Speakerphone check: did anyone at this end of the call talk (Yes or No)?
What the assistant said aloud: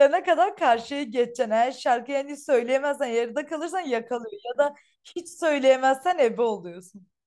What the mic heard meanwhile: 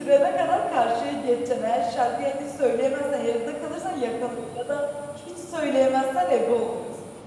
No